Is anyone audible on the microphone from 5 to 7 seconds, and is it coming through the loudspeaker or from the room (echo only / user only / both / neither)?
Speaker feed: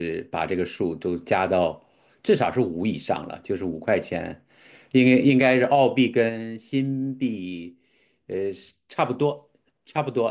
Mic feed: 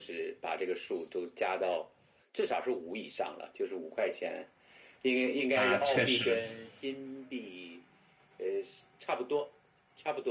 both